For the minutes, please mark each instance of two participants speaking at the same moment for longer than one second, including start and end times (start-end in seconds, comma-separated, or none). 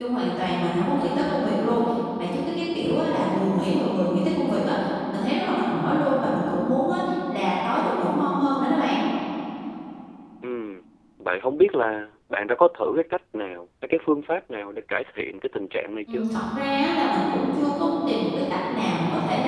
none